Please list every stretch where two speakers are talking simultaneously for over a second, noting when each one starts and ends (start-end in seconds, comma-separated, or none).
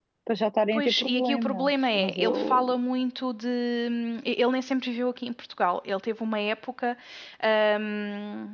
0.7-2.8